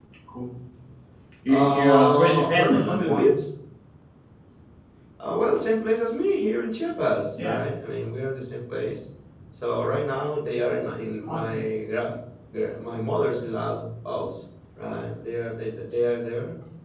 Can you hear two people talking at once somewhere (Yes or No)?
Yes